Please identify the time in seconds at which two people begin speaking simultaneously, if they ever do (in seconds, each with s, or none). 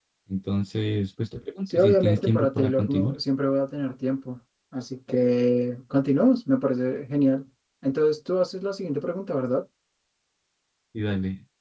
1.7 s